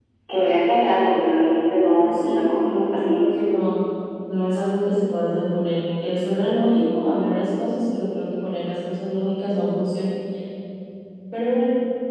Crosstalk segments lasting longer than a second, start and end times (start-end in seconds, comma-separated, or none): 2.0-3.2